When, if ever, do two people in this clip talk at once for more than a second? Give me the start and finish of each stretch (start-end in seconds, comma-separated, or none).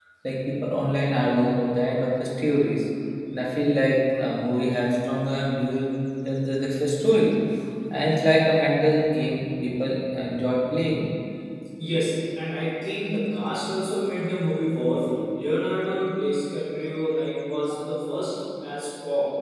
none